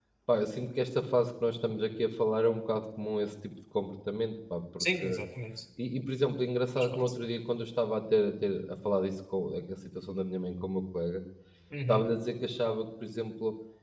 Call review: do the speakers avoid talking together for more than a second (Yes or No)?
Yes